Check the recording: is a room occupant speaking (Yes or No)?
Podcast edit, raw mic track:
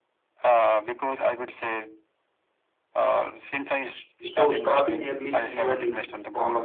Yes